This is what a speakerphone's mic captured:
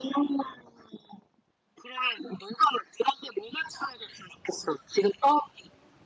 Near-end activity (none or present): none